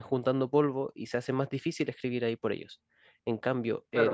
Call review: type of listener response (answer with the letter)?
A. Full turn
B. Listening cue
A